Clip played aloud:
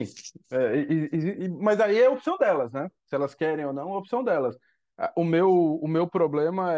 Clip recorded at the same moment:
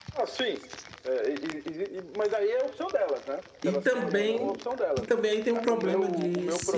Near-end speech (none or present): present